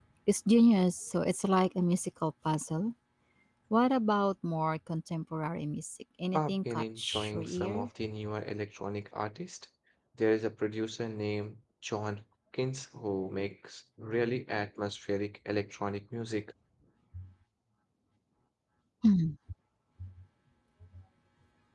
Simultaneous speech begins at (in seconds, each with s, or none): 6.3 s